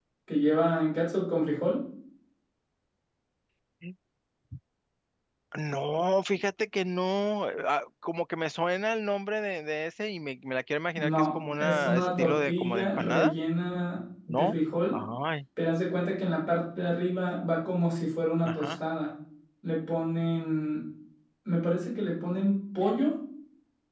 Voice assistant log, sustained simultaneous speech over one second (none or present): present